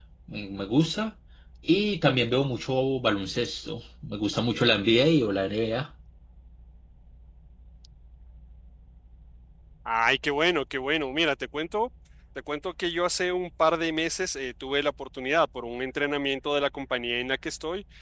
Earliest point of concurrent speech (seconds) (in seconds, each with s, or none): none